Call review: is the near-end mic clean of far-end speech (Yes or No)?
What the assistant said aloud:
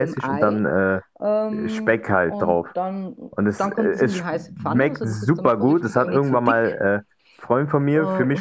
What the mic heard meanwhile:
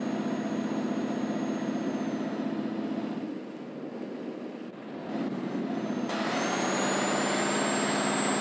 Yes